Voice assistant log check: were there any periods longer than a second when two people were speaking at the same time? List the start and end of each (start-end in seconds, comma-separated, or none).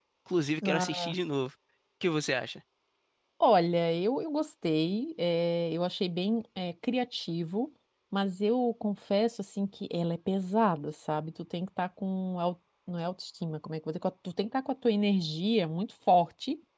none